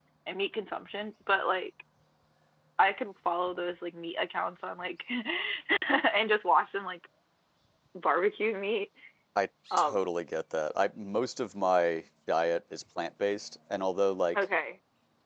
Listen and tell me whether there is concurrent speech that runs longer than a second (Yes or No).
No